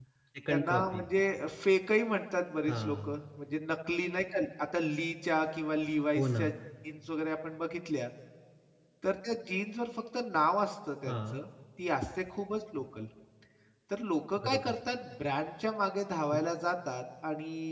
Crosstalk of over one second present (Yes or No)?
No